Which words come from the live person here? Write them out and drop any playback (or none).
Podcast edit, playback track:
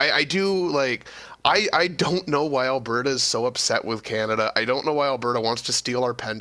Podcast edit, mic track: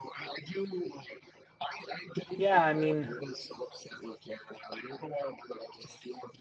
yeah, I mean,